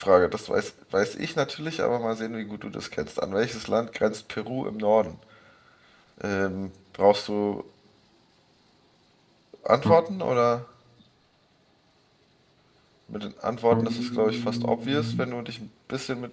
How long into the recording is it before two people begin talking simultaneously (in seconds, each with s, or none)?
13.7 s